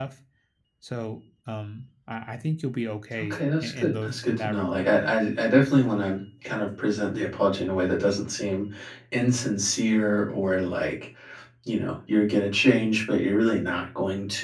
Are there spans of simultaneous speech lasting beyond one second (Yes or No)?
Yes